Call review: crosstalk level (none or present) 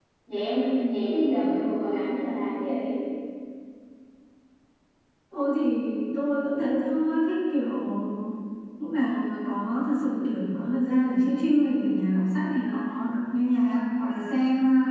none